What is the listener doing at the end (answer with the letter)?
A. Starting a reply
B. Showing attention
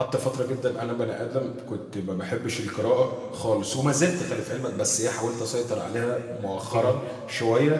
B